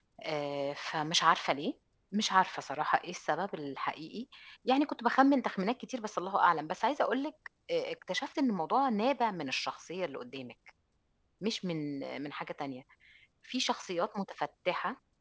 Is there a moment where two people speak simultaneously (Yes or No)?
No